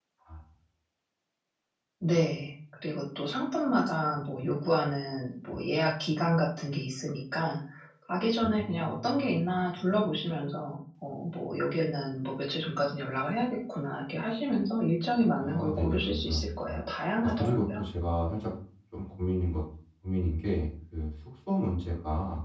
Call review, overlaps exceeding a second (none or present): present